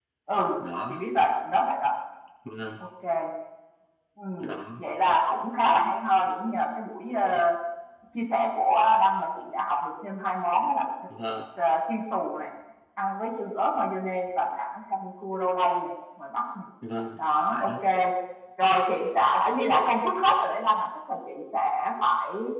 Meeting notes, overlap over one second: none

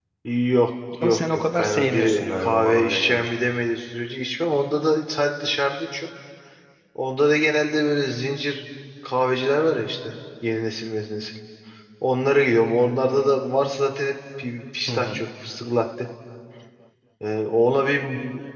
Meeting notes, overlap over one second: present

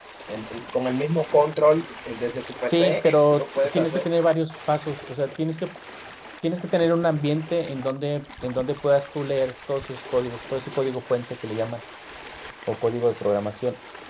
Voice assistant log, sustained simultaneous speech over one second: present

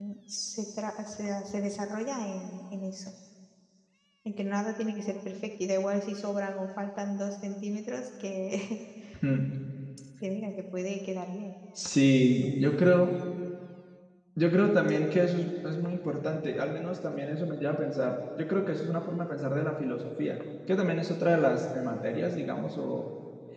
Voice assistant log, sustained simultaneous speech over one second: none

